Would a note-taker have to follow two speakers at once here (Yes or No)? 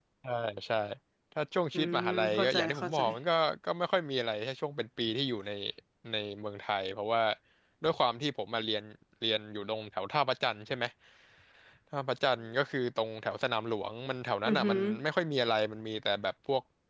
Yes